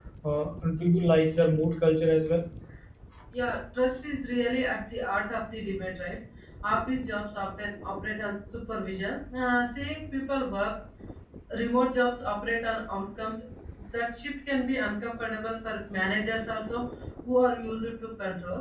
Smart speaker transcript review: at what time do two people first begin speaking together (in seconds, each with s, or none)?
none